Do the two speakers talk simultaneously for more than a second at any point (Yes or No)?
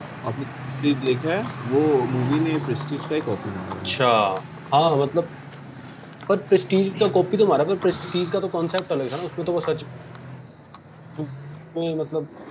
No